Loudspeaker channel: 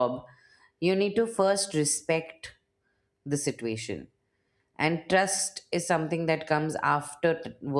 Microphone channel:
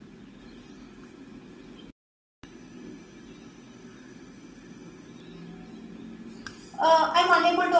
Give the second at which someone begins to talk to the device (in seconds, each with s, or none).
6.8 s